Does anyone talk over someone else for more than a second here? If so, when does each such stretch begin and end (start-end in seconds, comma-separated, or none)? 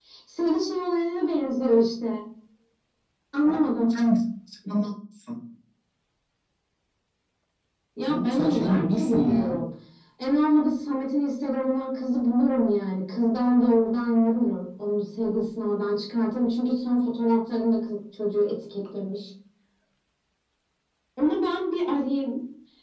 8.1-9.6